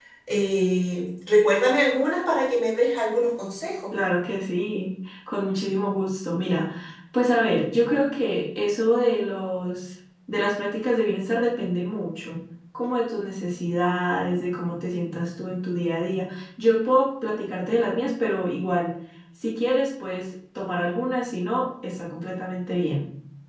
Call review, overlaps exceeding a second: none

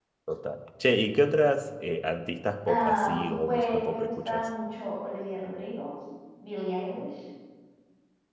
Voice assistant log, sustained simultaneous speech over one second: present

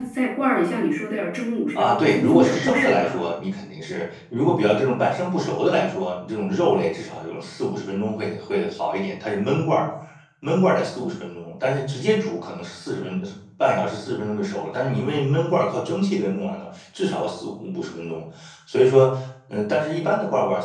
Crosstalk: present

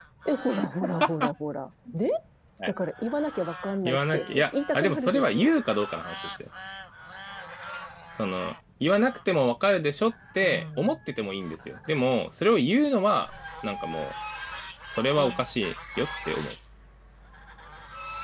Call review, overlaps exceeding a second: present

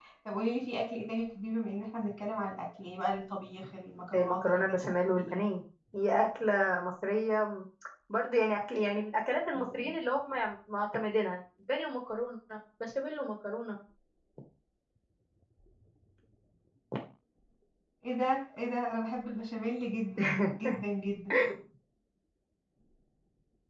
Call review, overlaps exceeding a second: present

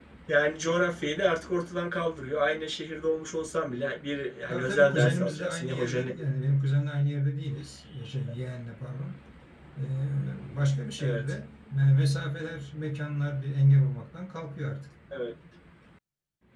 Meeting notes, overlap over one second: present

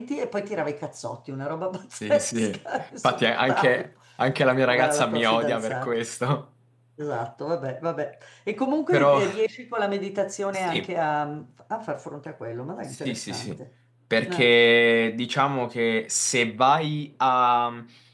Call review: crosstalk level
present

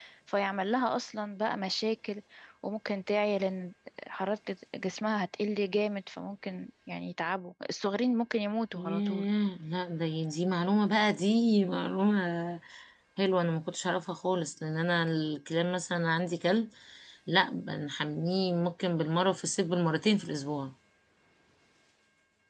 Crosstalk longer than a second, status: none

